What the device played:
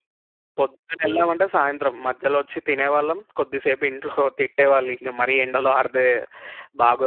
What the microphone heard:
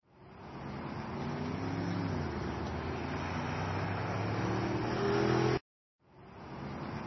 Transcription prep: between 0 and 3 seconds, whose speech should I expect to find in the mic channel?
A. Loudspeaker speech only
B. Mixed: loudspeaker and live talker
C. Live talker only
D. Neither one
D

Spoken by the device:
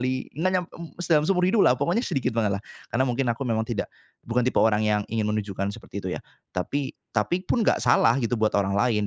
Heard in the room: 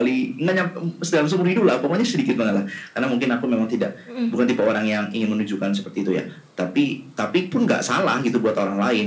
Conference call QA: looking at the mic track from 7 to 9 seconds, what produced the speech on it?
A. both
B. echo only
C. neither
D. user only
B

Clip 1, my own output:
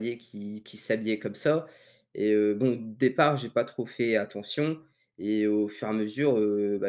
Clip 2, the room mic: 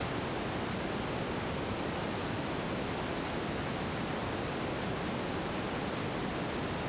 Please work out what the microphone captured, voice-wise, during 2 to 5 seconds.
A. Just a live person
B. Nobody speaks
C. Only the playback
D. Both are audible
B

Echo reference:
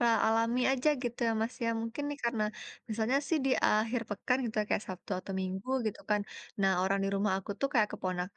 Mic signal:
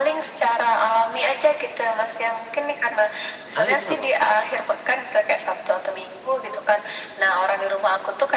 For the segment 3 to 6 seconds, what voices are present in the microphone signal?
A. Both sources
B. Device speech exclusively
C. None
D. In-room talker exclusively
A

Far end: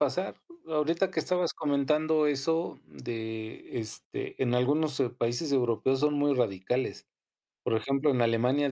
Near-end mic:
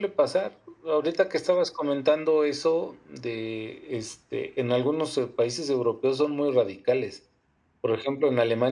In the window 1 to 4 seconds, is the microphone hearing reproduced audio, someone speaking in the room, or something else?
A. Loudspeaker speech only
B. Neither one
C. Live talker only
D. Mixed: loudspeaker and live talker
A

